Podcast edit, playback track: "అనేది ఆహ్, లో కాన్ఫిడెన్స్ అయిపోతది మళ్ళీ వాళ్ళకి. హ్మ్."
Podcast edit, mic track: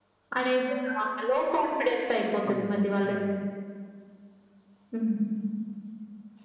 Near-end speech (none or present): present